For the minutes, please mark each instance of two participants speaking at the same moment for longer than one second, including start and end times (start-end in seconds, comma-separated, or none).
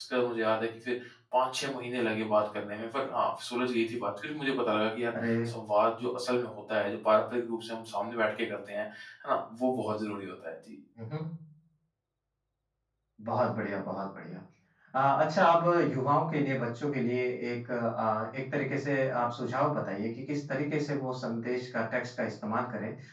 none